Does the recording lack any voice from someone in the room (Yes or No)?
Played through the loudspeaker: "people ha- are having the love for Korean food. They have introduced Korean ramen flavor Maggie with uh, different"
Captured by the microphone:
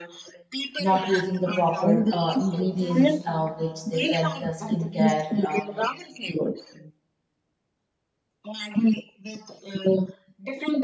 No